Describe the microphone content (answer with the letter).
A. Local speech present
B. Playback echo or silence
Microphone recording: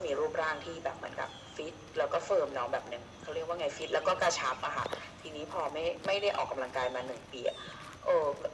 B